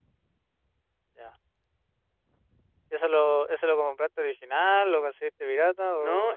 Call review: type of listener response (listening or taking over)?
taking over